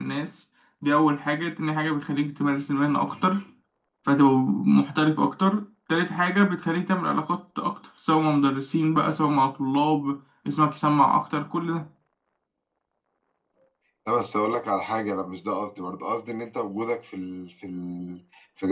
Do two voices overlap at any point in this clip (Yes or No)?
No